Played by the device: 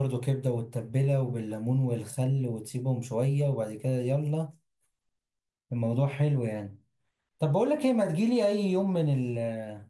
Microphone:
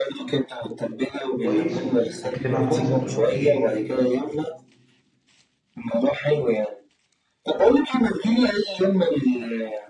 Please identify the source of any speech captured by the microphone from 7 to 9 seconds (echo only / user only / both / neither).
echo only